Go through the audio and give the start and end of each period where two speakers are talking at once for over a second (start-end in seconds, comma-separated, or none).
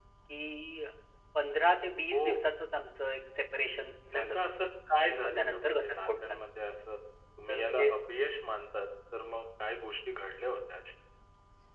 5.0-6.4